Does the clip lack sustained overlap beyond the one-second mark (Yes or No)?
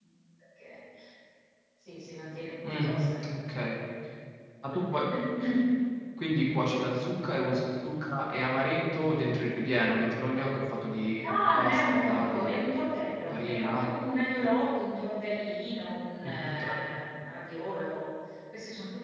No